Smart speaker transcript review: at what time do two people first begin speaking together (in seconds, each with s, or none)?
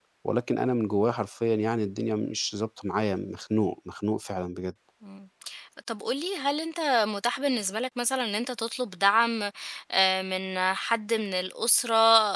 none